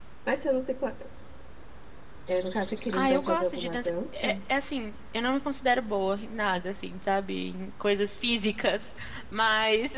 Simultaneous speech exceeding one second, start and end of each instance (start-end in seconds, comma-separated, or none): 2.9-4.3